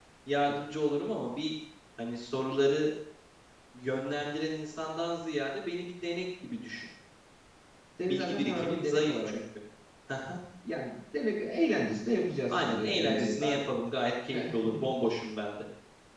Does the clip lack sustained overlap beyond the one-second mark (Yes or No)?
No